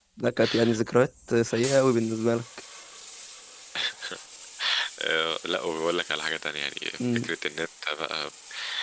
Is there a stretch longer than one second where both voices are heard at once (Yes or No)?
No